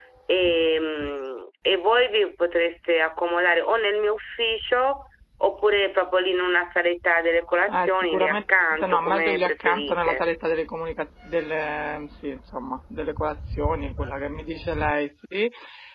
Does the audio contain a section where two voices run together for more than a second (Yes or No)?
Yes